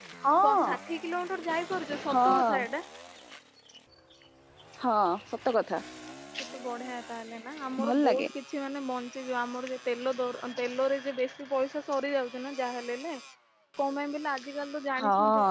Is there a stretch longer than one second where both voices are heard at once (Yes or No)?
No